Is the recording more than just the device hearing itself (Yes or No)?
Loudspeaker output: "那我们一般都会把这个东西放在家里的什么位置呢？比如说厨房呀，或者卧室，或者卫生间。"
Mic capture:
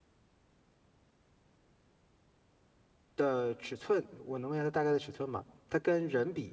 Yes